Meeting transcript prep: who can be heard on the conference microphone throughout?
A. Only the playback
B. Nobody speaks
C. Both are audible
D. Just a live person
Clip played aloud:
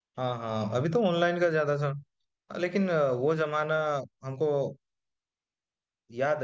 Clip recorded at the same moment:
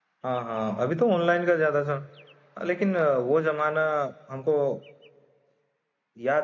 A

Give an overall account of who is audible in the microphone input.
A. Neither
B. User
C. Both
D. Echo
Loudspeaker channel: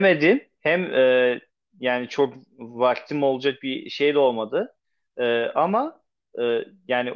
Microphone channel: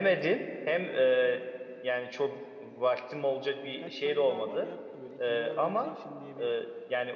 C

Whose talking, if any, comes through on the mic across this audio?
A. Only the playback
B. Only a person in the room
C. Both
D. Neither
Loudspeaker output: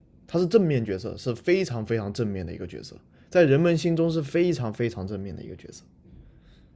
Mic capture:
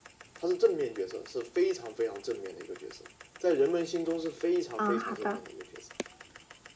C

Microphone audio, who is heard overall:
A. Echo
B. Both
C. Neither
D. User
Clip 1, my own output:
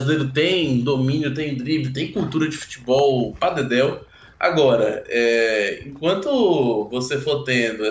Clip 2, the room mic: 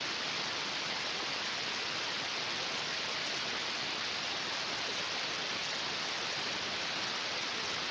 C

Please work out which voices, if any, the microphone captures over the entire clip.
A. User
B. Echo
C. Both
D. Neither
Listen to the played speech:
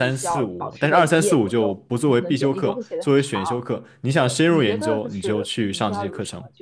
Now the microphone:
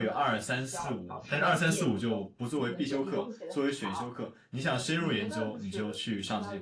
B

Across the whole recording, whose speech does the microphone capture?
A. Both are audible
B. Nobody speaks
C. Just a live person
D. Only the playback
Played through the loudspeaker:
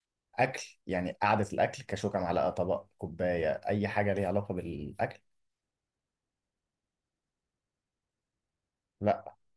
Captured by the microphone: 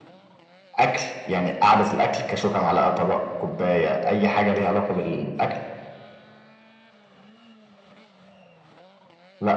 D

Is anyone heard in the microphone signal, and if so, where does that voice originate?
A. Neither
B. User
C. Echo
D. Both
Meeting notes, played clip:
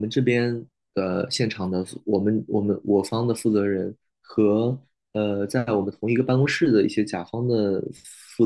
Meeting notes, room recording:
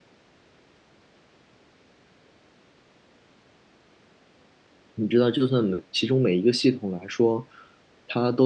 B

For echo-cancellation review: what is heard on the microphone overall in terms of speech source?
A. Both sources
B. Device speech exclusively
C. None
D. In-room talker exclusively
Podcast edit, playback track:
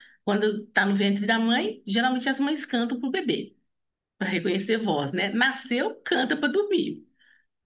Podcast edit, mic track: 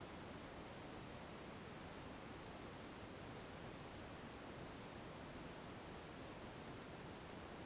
C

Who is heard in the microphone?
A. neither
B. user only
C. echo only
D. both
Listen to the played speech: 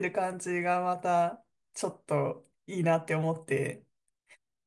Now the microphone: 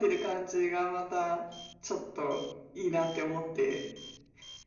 C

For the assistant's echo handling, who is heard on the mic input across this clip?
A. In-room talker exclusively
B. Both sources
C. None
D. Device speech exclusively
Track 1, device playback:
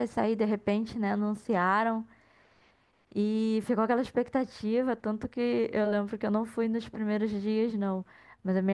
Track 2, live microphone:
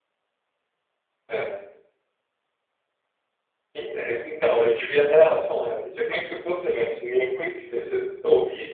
A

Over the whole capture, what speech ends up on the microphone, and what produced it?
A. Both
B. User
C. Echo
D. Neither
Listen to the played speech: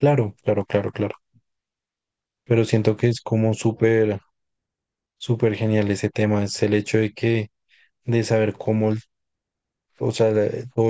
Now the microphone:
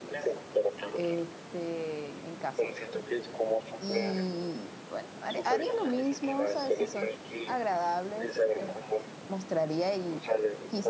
A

